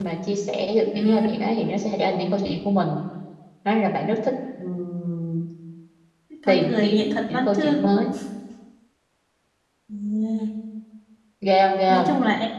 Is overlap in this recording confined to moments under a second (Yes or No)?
No